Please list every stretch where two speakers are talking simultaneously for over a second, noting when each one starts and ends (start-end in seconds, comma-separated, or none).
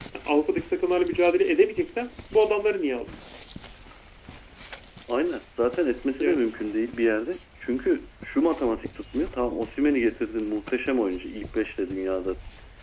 none